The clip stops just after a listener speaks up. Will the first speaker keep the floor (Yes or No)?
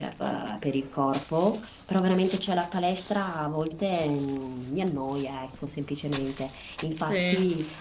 Yes